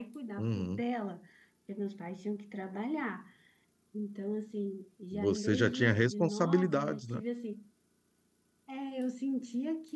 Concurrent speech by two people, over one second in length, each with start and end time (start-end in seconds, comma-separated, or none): 5.1-7.2